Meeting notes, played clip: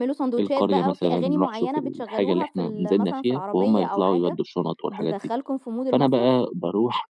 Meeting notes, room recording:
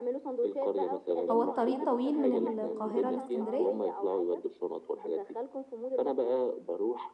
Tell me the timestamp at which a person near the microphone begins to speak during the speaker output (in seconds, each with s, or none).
1.3 s